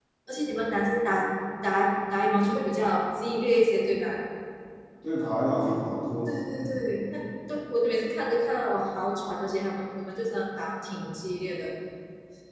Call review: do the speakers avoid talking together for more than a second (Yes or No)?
Yes